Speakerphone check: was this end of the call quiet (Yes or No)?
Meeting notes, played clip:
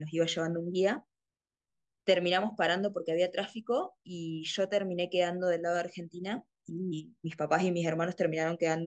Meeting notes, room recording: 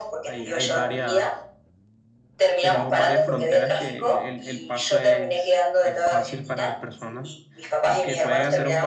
No